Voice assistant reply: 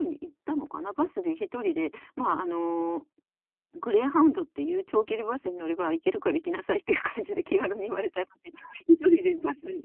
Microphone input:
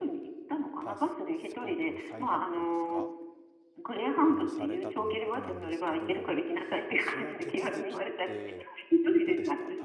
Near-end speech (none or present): present